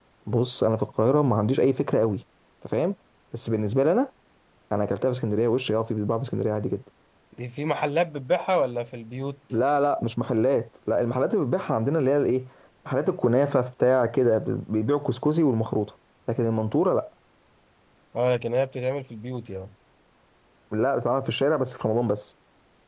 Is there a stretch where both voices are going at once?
No

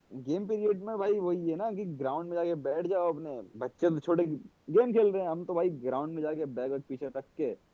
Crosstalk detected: No

